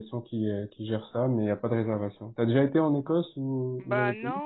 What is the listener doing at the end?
taking over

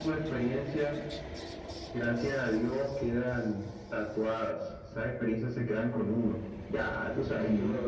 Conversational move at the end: listening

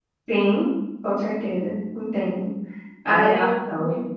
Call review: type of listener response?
taking over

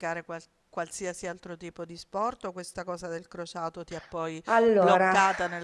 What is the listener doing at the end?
listening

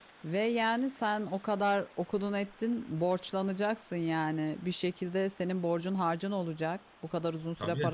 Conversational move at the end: listening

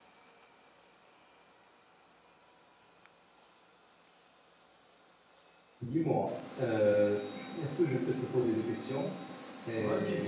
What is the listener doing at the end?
taking over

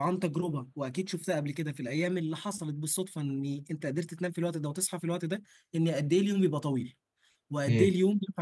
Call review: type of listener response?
listening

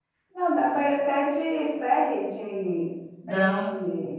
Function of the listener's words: listening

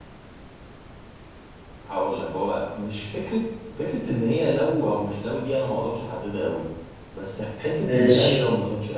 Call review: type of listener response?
listening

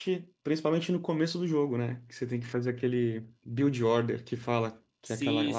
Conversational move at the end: taking over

